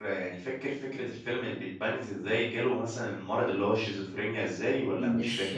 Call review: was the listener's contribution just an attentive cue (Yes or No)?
No